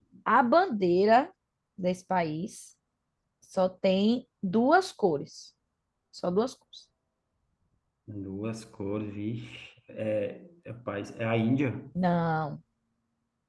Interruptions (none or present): none